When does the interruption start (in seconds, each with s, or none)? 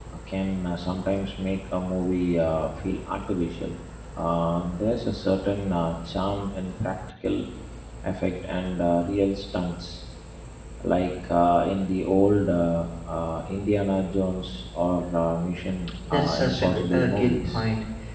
16.1 s